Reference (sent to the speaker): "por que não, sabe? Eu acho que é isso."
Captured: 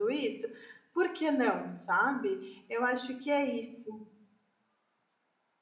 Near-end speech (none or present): none